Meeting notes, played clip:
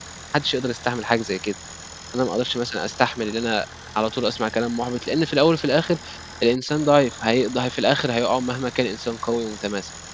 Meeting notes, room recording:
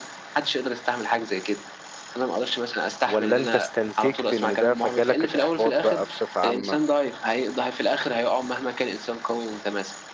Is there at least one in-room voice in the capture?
Yes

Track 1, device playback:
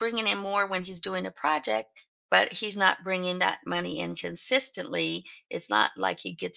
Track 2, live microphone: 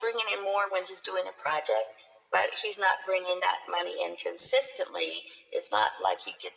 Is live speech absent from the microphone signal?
Yes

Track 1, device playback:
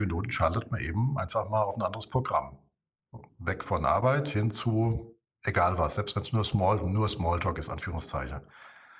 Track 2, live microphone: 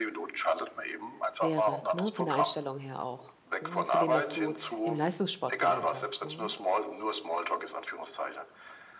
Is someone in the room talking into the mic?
Yes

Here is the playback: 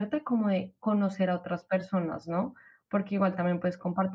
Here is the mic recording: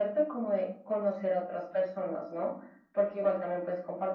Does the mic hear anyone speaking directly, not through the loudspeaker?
No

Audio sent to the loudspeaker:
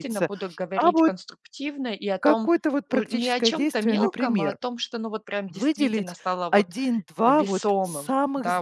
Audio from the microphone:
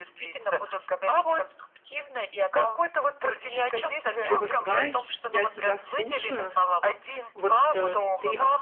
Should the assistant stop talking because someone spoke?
Yes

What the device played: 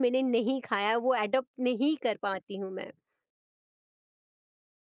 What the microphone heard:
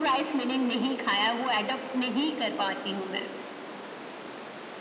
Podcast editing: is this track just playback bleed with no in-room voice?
Yes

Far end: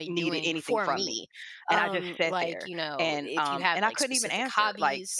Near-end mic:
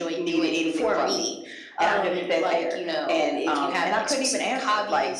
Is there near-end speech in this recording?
No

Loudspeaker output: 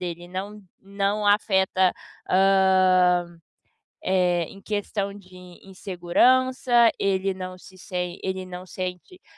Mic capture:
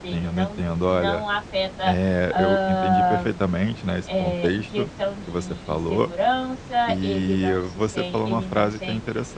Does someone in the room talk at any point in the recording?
Yes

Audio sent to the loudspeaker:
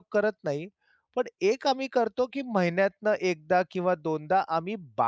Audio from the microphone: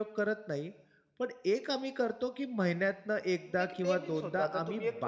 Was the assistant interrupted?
Yes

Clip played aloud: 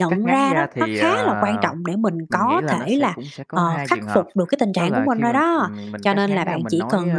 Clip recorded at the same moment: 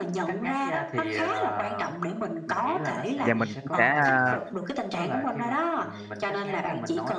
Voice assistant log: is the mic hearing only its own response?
No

